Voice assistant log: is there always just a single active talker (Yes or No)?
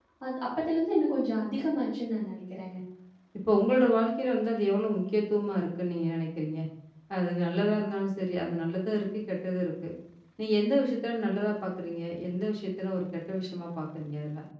Yes